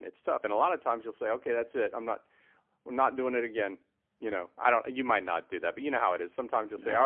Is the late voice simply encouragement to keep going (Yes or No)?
Yes